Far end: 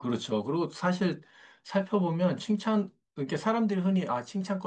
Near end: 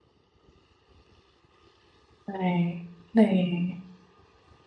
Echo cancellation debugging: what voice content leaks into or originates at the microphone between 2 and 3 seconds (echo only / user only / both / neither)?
user only